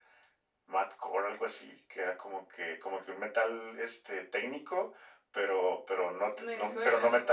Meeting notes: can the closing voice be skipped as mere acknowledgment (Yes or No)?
Yes